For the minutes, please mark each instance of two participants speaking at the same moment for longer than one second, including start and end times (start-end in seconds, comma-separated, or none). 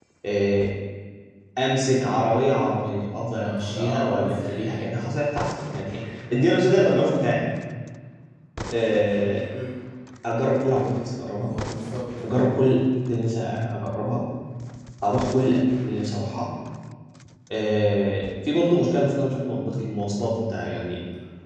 3.4-4.9